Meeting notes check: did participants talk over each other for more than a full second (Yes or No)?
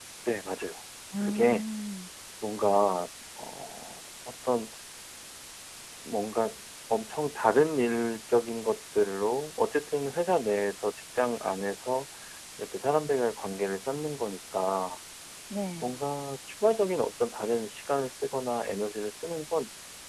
No